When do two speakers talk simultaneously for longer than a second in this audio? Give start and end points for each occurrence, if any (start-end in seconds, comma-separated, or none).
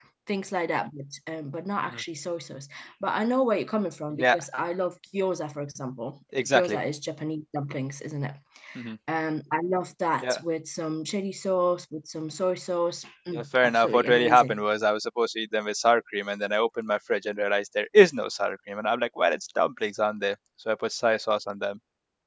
13.3-14.6